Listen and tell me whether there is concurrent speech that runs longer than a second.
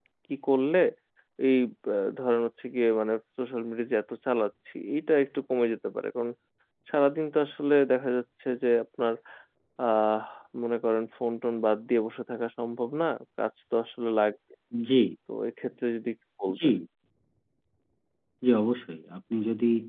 No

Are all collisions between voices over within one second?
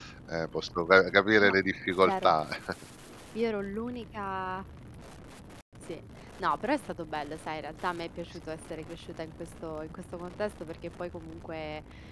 Yes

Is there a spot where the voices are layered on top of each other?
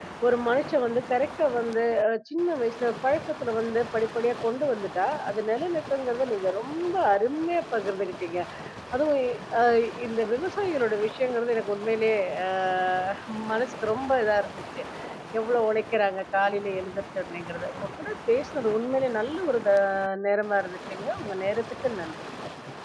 No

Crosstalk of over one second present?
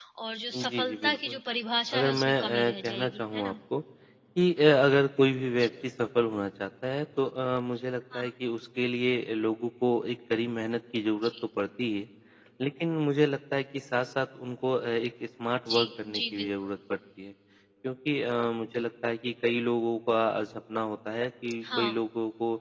Yes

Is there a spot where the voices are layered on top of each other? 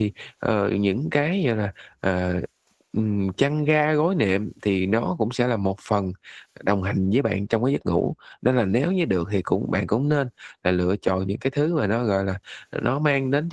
No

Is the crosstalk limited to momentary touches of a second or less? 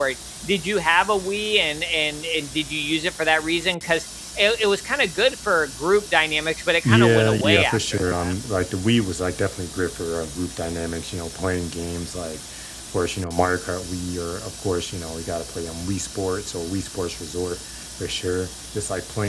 No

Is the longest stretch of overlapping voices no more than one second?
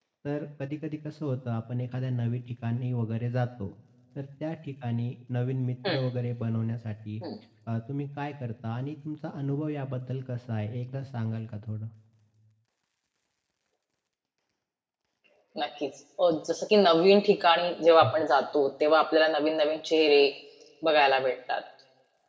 Yes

